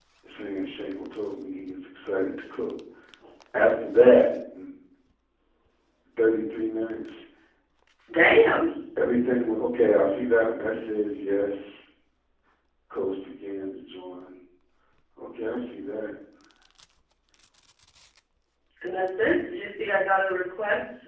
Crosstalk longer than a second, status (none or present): none